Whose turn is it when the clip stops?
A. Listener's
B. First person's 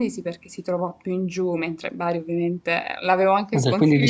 A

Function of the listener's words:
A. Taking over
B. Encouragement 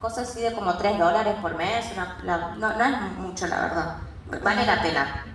A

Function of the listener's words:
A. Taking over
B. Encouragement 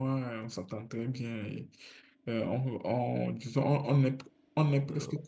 B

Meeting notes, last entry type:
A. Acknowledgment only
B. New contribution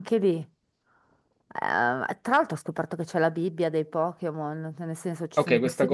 B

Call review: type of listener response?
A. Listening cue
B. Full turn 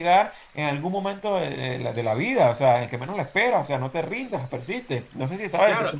B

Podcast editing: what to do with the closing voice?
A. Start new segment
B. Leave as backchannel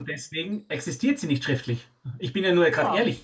A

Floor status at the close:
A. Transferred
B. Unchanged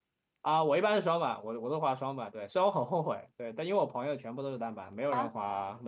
B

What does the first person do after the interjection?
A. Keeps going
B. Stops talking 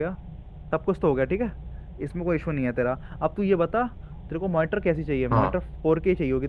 A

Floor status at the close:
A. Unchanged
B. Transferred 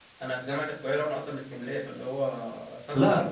B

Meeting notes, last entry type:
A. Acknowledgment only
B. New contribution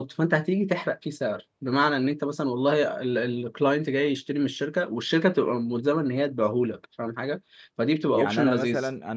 B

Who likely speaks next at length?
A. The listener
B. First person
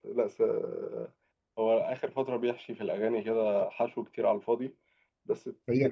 A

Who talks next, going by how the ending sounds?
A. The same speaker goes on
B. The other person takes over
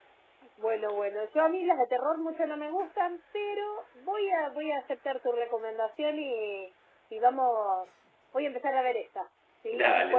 A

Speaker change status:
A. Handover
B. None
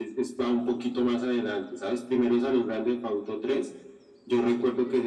B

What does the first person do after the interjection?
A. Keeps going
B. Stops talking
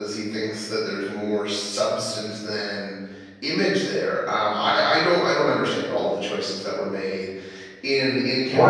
B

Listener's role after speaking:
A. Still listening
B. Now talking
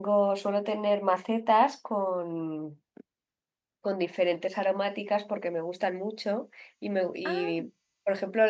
A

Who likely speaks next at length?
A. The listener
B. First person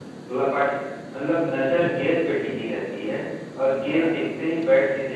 B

